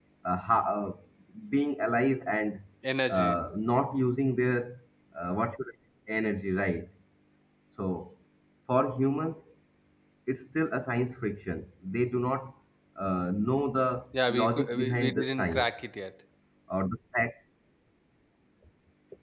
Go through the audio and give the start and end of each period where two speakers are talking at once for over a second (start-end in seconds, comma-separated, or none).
14.3-15.7